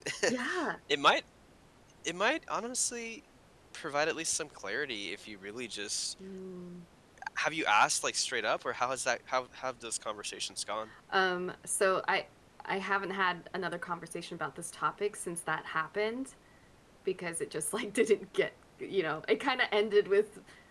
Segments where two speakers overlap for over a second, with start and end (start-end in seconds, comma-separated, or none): none